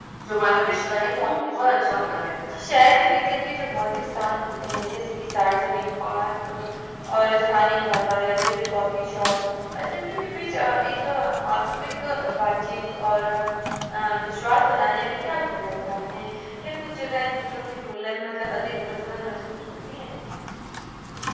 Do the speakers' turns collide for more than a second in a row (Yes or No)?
Yes